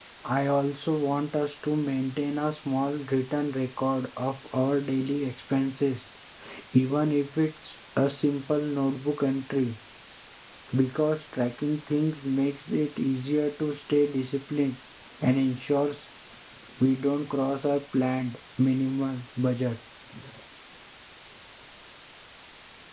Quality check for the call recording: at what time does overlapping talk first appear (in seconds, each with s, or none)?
none